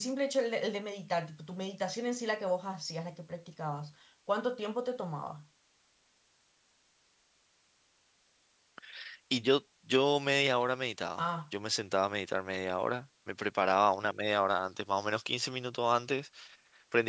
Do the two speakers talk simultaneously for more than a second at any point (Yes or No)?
No